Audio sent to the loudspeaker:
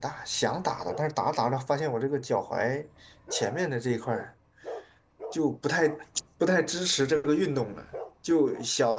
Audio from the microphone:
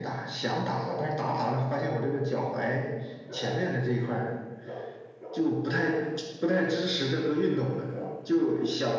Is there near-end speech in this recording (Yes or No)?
No